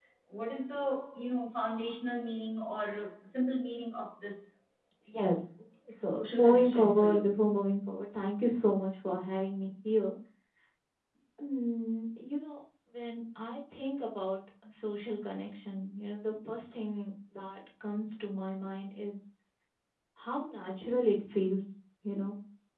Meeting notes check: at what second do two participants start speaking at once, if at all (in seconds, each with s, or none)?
6.1 s